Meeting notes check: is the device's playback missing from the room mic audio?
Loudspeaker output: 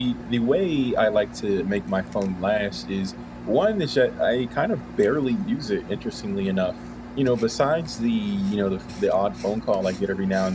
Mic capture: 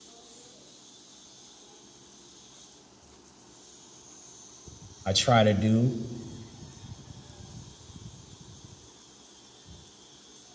Yes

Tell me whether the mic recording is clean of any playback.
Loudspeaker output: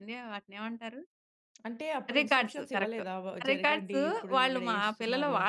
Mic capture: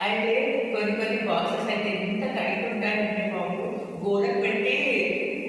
Yes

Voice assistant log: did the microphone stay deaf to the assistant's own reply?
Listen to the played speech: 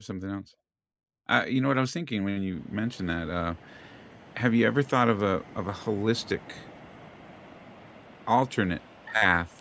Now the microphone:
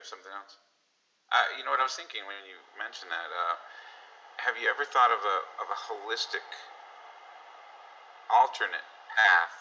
No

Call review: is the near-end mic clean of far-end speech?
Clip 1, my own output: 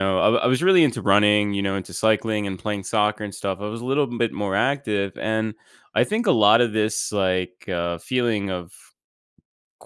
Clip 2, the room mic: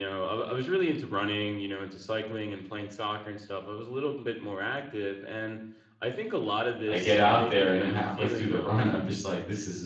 No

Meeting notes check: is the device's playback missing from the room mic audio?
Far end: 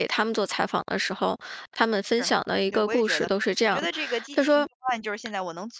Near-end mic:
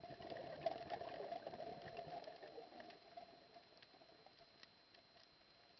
Yes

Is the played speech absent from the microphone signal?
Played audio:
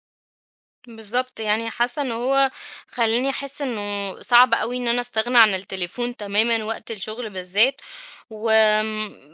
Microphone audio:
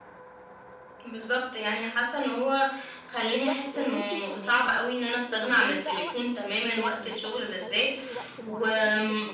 No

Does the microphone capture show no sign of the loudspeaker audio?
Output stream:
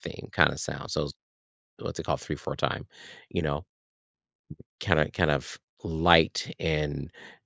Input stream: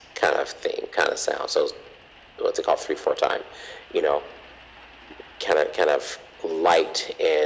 No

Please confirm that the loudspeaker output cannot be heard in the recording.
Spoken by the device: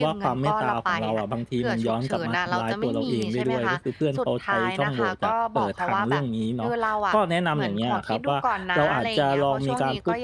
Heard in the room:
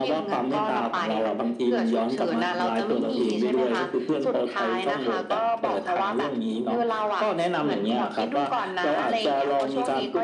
No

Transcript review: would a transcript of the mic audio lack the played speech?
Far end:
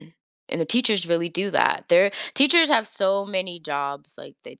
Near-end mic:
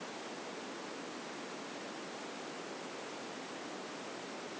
Yes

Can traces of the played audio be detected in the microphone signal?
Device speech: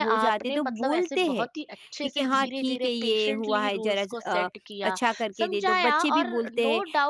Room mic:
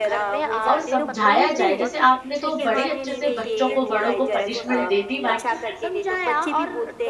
Yes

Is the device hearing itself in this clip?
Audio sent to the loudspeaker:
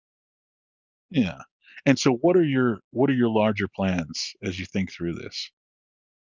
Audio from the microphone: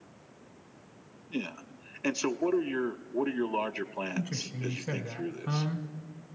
Yes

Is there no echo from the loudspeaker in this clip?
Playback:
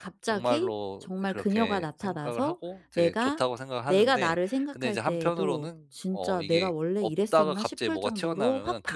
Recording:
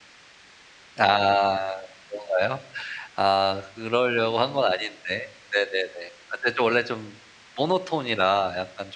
Yes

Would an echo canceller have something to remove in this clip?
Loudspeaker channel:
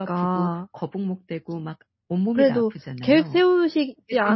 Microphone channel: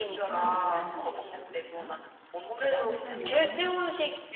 Yes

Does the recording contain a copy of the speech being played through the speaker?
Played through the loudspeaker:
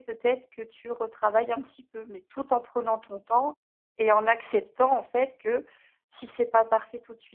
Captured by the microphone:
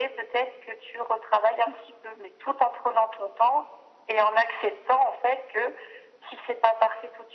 Yes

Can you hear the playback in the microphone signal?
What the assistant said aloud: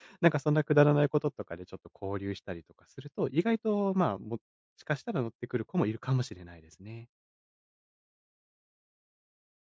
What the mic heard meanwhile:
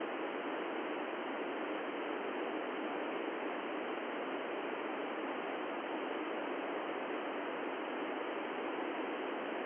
No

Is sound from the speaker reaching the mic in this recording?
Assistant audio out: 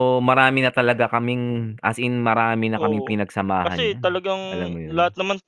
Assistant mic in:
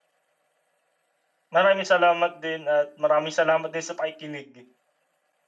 No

